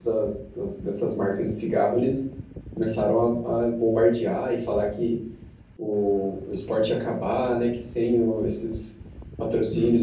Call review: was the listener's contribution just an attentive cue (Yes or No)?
Yes